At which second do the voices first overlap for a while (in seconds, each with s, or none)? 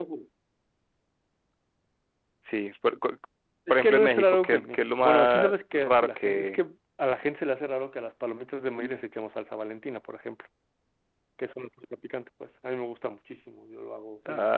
3.7 s